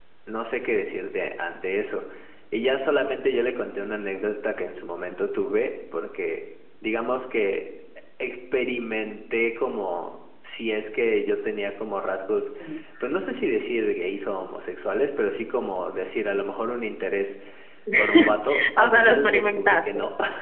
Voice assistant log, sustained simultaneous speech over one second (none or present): present